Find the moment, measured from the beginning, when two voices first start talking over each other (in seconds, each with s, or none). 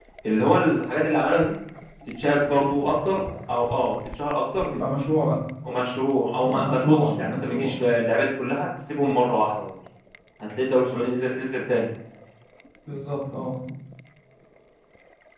6.4 s